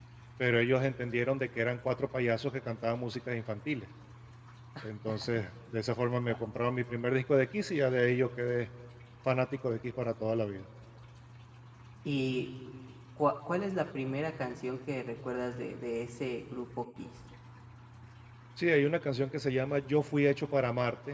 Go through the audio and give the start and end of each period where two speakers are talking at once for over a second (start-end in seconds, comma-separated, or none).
none